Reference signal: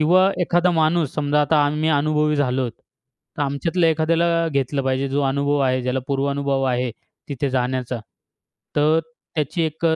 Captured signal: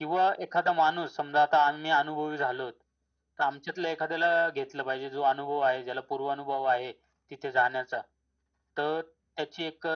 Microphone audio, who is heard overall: echo only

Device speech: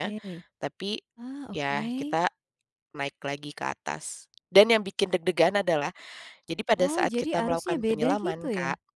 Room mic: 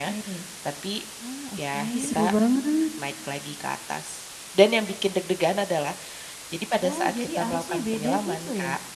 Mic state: both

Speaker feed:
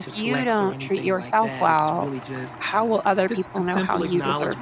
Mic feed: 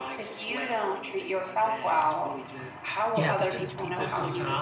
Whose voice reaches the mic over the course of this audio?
both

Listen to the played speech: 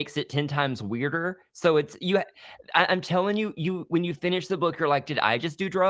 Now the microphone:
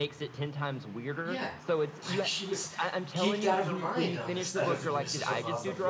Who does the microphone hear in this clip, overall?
both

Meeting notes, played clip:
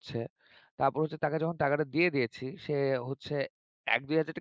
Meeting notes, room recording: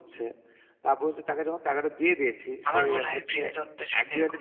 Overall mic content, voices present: both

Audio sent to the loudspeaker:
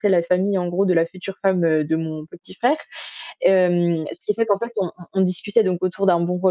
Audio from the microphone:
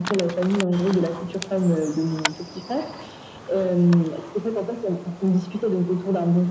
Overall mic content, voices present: echo only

